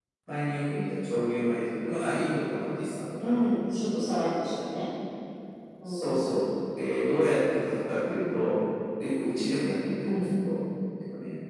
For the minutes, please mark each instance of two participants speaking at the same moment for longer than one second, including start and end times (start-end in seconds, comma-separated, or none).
none